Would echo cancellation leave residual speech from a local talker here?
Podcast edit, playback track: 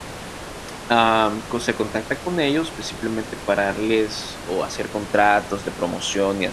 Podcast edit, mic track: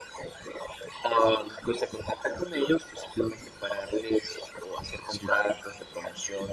Yes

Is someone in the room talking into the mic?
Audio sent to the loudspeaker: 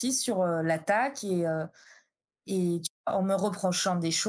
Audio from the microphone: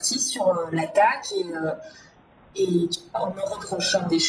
No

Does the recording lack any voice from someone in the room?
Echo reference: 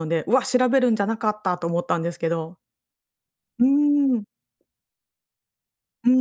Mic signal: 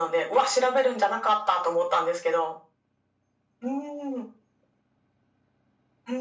Yes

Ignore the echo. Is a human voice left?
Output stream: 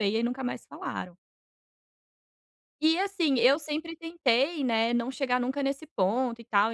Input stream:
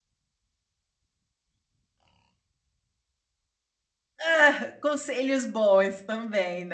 Yes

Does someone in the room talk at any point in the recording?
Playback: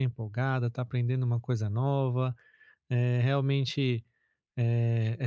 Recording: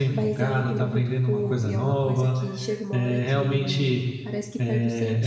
Yes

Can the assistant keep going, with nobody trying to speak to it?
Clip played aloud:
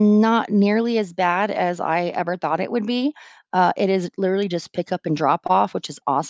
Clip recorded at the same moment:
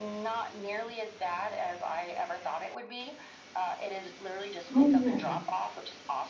No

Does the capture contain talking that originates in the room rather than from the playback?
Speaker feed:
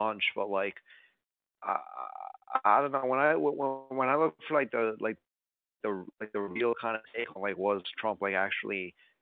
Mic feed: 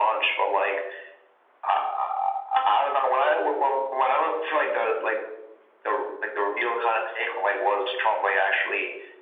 No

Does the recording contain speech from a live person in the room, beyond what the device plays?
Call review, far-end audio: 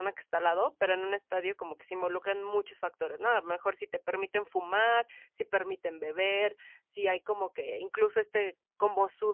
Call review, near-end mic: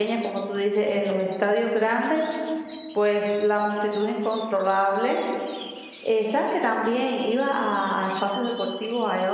Yes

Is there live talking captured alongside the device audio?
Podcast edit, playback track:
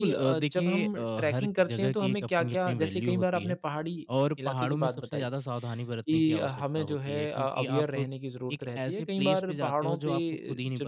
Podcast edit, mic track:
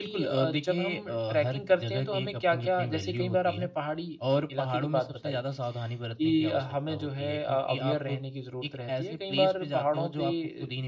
No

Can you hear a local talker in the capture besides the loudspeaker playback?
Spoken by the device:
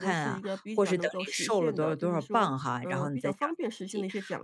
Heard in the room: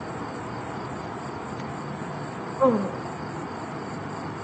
Yes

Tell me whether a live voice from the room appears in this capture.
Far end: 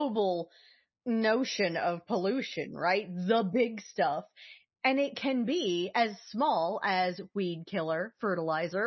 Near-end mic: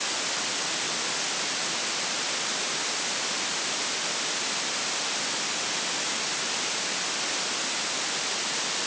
No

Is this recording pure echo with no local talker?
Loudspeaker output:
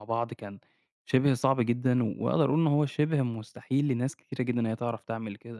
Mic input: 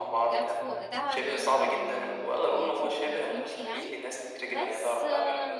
No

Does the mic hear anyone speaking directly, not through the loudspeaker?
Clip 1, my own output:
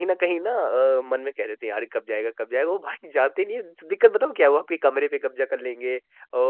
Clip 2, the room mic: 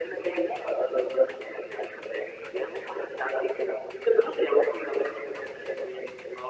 No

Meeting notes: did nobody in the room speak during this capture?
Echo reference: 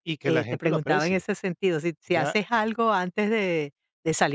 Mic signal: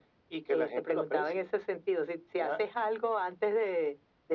Yes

